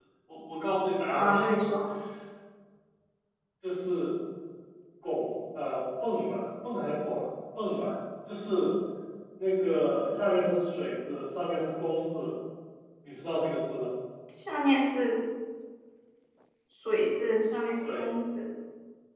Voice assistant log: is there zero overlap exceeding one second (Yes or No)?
Yes